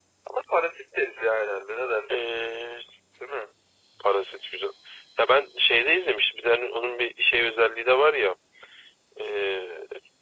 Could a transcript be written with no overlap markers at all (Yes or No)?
Yes